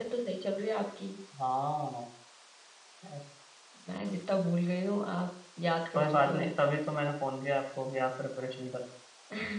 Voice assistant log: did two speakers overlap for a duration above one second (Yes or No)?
No